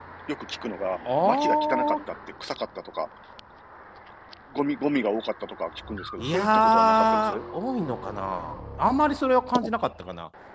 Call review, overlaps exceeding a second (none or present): present